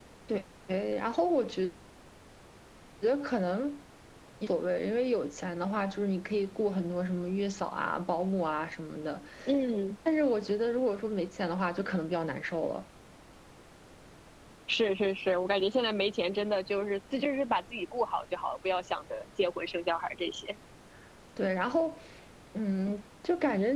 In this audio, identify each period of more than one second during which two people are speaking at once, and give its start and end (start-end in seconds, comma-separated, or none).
none